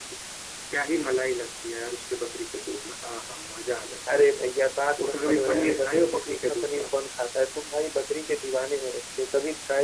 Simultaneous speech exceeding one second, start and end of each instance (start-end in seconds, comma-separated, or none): 5.0-6.9